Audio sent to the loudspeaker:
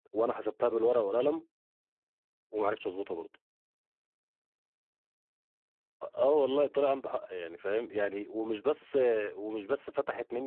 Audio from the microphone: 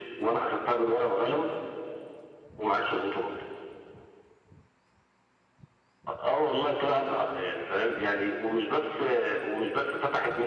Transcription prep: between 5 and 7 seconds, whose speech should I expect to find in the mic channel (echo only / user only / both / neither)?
echo only